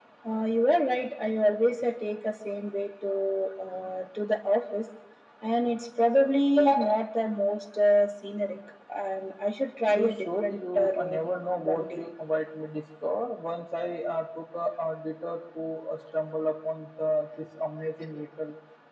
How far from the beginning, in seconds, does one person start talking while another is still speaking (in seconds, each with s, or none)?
9.9 s